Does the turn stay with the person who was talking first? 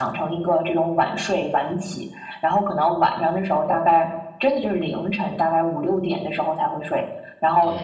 Yes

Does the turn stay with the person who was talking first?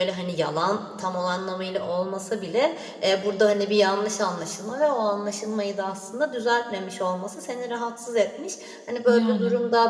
Yes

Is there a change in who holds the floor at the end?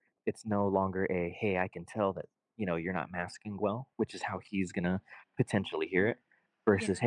No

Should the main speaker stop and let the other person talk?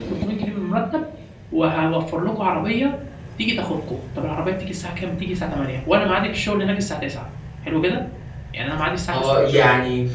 Yes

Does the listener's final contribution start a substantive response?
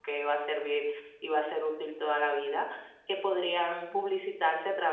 No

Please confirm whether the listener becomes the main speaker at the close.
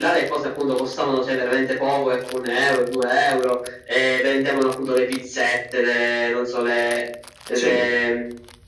No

